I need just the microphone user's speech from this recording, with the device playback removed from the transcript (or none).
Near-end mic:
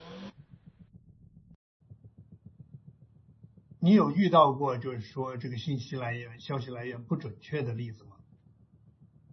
你有遇到过就是说这个信息来源、消息来源不准确的例子吗？